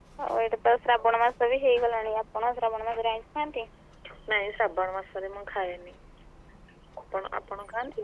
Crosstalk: none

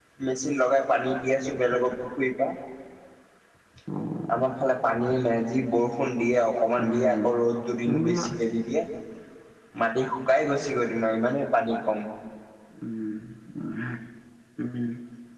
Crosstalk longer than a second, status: none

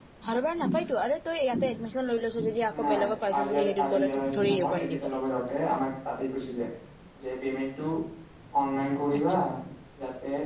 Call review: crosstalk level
present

